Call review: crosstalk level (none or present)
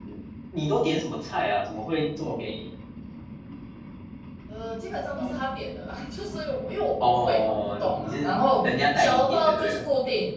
present